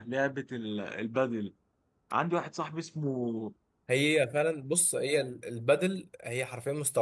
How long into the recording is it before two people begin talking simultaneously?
none

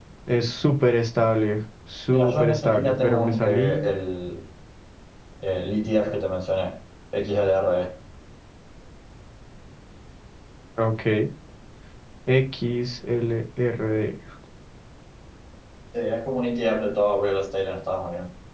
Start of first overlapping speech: 2.1 s

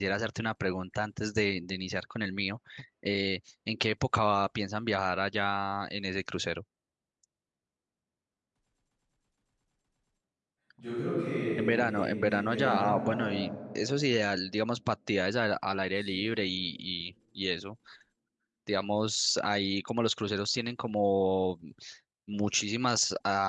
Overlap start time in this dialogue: 11.6 s

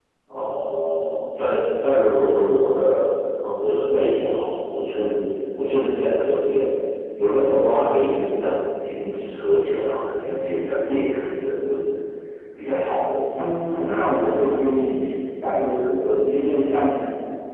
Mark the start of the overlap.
13.4 s

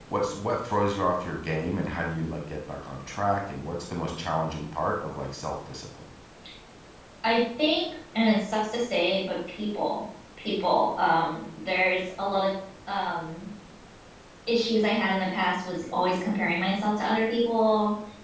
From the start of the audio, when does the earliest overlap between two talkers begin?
none

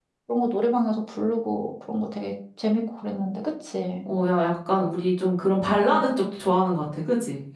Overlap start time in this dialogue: none

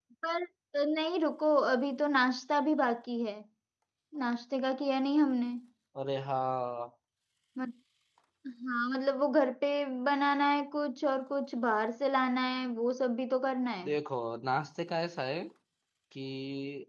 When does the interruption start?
none

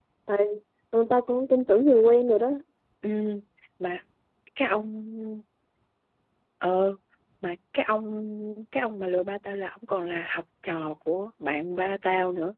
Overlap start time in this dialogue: none

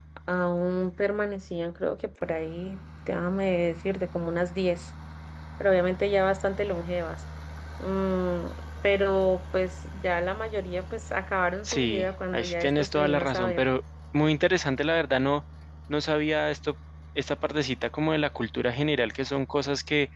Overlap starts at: 11.7 s

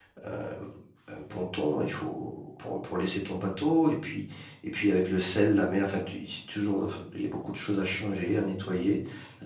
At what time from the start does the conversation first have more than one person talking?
none

